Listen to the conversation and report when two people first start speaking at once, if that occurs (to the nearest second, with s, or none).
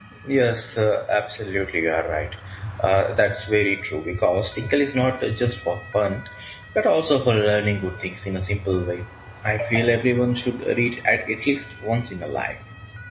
none